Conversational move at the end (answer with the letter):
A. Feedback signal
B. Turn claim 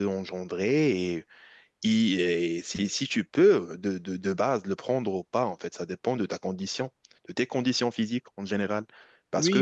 A